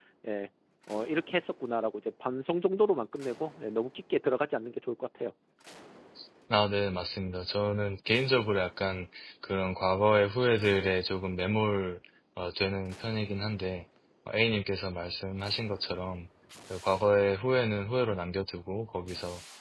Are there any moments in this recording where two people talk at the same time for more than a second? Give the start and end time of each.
none

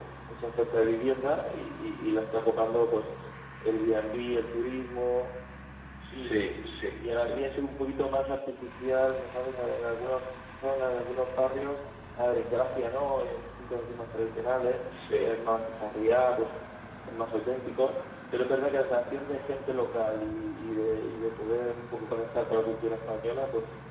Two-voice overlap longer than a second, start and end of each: 6.1-7.5

